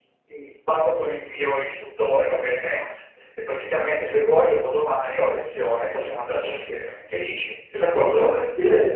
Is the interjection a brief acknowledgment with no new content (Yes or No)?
No